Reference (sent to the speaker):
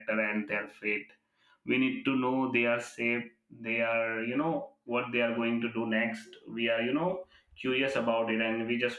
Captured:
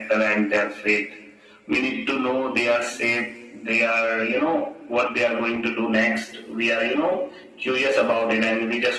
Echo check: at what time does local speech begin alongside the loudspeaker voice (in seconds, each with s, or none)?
none